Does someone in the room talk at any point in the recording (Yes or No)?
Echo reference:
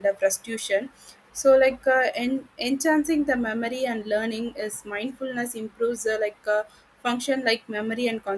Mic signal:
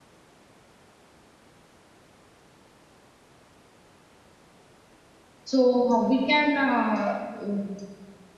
Yes